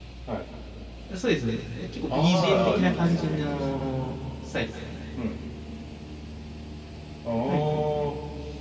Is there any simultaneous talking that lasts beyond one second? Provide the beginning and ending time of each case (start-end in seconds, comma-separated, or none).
2.1-3.5